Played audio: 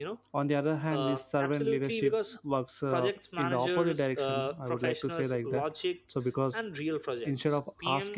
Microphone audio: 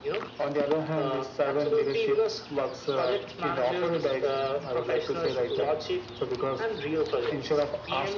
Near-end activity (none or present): none